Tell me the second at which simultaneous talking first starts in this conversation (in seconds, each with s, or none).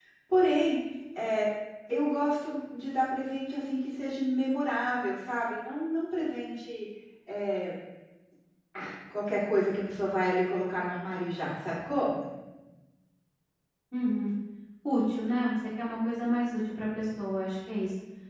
none